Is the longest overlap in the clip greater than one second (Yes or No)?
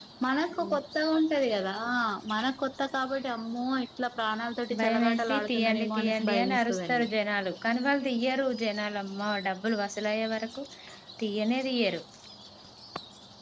Yes